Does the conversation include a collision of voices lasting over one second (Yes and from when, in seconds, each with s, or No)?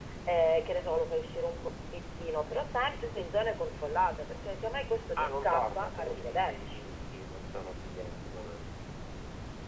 Yes, from 5.2 s